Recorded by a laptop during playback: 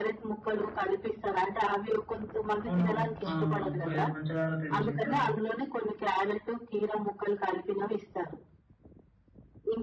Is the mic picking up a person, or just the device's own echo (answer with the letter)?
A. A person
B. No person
A